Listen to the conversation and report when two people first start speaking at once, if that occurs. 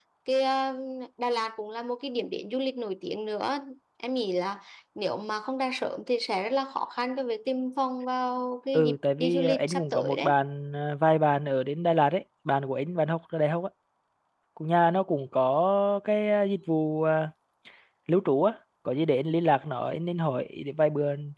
8.7 s

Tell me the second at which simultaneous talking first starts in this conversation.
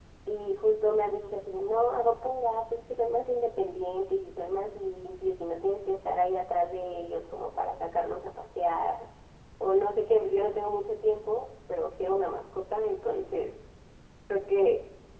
none

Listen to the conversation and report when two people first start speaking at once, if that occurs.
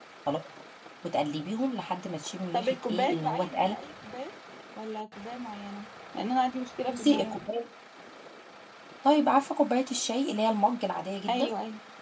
2.5 s

